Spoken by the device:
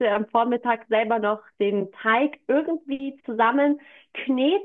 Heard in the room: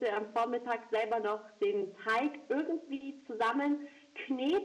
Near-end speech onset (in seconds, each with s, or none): none